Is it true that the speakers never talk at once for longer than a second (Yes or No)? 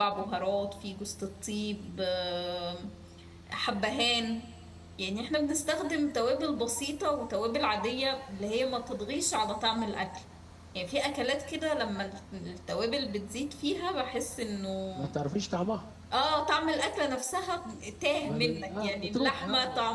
No